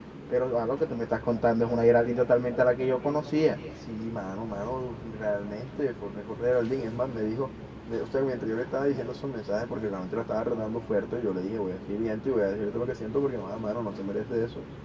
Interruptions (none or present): none